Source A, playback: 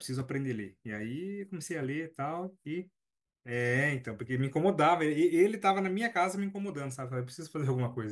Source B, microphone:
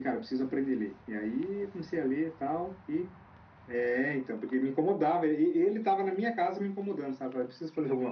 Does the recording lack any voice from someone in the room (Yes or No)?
Yes